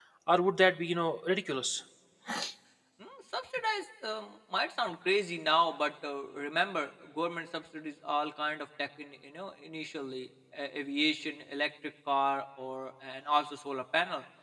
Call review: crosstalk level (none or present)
none